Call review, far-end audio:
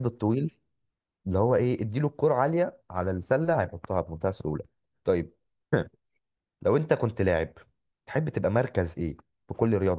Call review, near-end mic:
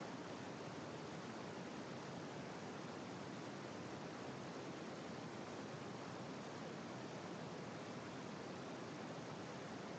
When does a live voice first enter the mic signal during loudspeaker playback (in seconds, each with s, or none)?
none